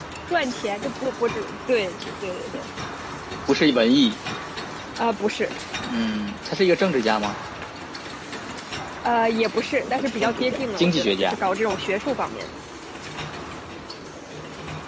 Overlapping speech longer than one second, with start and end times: 9.8-11.4

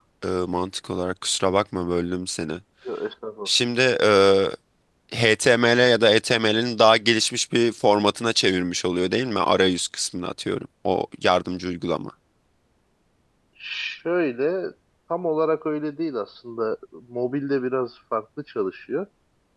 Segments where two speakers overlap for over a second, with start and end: none

